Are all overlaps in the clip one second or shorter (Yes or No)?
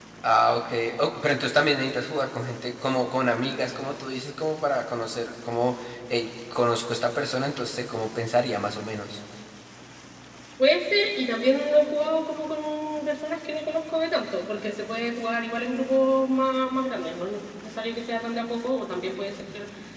Yes